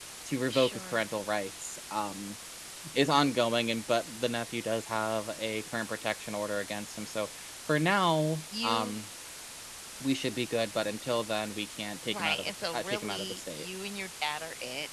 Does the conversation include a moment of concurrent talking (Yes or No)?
Yes